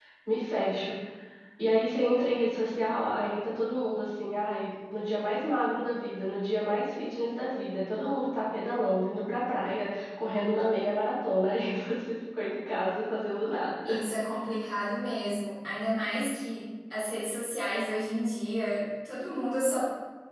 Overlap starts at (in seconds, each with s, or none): none